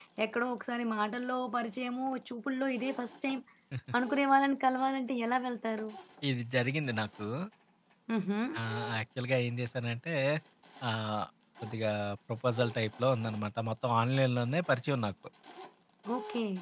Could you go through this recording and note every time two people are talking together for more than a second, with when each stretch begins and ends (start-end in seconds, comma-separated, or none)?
none